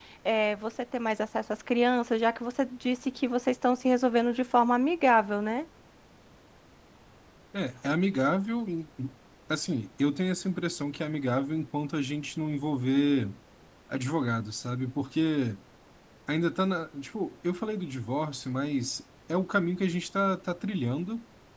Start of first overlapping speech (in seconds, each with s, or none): none